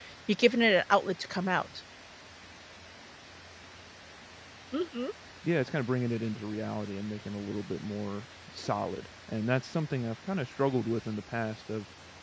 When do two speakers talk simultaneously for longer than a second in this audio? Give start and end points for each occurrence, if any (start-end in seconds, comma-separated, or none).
none